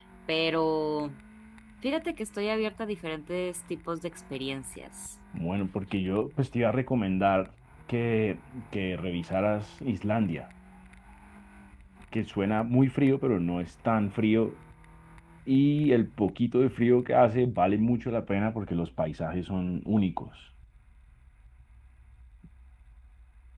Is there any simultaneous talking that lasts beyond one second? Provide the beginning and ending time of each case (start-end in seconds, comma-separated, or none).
none